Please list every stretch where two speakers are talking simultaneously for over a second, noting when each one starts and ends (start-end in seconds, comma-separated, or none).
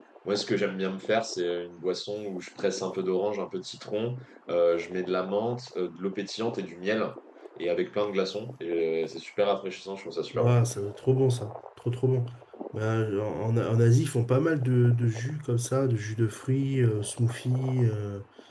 none